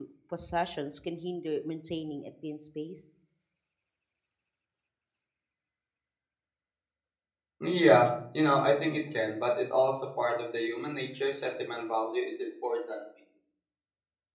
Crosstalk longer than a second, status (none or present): none